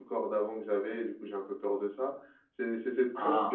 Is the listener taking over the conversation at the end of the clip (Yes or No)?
No